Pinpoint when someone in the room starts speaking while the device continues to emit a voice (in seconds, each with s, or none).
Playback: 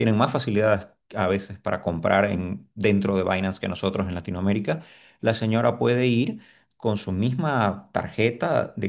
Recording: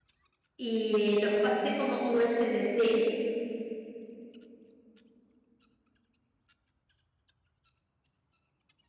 0.6 s